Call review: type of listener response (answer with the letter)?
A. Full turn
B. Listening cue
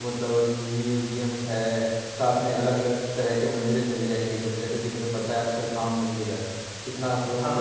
A